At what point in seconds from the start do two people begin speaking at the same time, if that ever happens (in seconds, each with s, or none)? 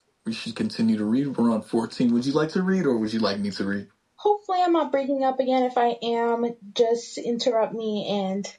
none